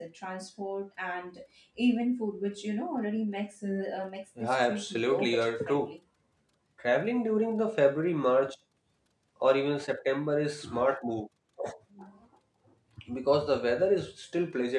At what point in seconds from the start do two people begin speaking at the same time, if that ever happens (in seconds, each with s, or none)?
4.4 s